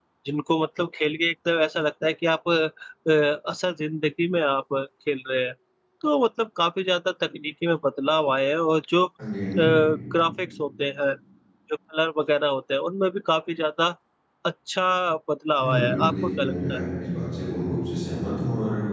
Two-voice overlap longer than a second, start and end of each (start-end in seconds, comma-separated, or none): 15.6-16.8